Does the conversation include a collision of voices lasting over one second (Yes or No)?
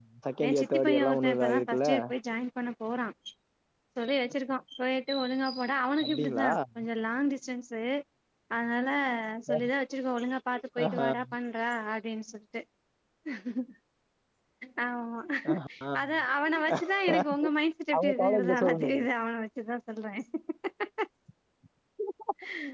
Yes